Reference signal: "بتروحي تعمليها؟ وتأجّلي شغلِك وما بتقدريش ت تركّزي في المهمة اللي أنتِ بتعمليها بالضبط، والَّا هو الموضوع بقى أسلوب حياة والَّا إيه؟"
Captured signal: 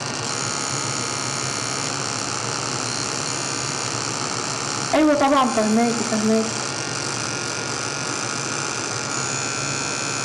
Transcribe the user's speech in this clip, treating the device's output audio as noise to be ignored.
أيوه طبعًا، فاهماكِ، فاهماكِ.

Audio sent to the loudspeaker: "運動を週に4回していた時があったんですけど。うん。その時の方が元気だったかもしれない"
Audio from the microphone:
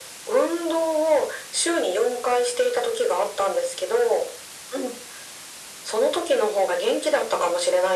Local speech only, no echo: none

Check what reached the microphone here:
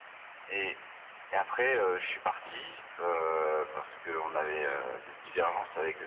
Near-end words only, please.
none

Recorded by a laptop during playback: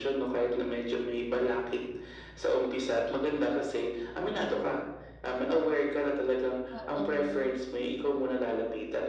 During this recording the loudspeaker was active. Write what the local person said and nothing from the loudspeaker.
Oo.

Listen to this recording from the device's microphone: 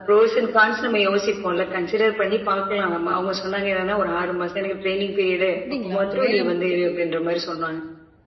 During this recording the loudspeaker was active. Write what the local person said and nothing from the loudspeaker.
அப்டீங்களா? அவுங்க வேற

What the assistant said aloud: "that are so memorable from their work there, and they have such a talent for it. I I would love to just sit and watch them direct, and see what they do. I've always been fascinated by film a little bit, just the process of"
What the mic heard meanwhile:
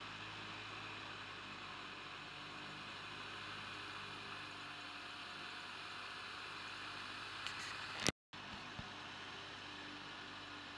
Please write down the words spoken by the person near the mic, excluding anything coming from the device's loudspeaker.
none

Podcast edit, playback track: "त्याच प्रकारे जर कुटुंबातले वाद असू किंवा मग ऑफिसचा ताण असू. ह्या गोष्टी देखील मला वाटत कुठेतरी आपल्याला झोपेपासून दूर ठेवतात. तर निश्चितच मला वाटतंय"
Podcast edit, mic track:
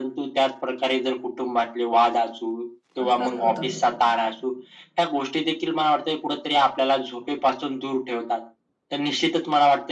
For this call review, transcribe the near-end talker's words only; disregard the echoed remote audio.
असंच होतं.

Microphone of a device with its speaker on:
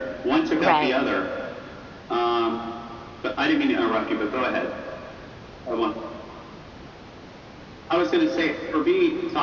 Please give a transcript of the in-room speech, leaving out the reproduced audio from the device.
Right.

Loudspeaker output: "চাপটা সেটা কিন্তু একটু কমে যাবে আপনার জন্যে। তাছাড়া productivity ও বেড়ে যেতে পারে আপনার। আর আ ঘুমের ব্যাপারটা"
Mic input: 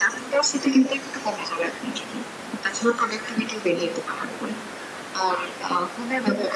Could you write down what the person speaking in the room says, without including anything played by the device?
none

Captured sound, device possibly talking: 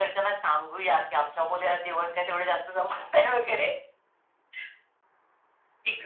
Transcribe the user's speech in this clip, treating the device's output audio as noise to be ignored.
none

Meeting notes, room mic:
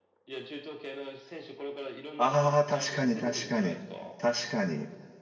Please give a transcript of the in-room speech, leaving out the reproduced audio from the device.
ああ、確かに確かに、確かに。

